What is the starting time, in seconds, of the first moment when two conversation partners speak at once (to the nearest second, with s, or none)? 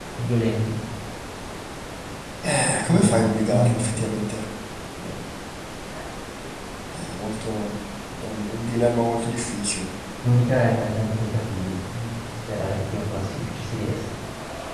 3 s